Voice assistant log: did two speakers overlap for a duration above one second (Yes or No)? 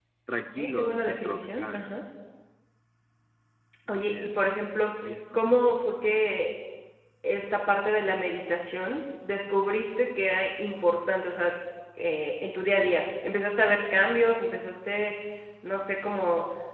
Yes